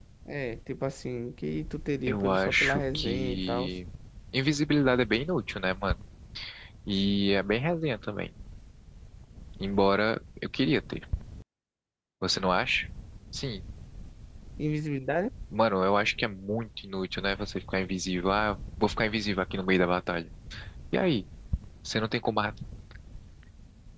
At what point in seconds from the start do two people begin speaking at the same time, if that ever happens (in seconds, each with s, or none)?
2.1 s